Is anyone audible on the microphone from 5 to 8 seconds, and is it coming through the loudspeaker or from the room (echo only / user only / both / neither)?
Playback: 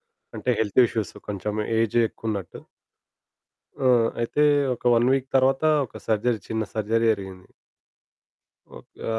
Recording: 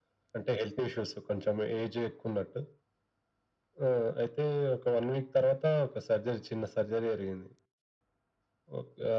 echo only